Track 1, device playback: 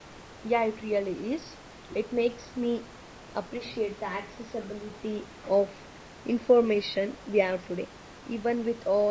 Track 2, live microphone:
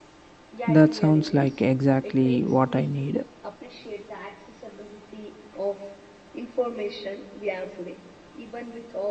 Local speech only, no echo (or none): That sounds like exactly what I need.